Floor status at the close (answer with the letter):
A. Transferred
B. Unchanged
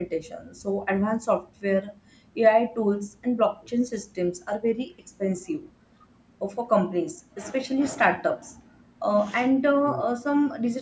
B